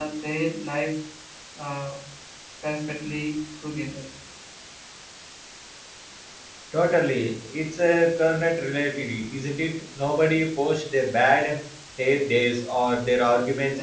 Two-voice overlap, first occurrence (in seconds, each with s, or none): none